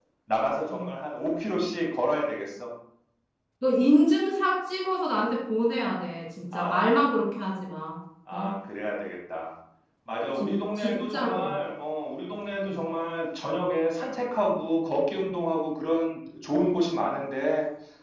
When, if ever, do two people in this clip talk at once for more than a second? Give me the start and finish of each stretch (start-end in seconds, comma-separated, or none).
10.4-11.6